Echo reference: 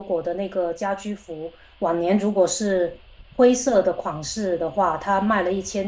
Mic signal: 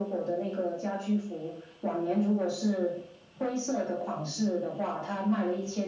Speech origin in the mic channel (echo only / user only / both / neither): echo only